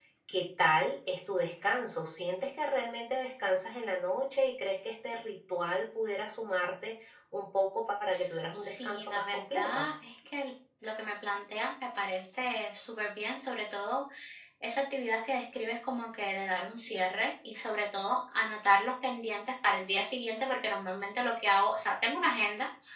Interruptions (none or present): present